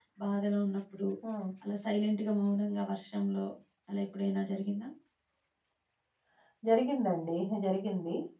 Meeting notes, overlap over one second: none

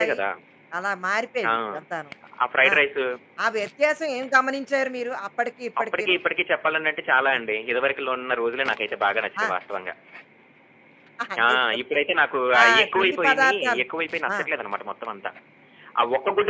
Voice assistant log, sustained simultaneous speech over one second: present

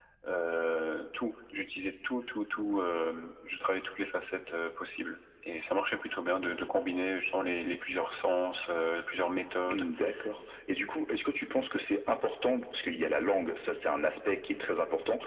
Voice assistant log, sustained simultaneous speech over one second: none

